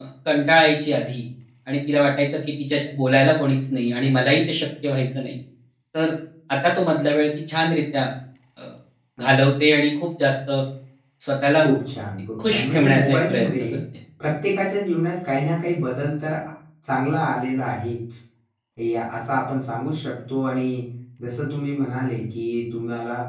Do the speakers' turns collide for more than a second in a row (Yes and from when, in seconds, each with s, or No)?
Yes, from 12.4 s